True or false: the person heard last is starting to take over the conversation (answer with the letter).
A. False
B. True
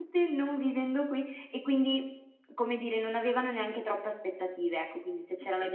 B